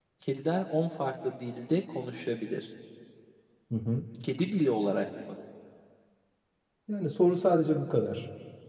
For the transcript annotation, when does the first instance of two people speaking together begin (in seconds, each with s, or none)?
none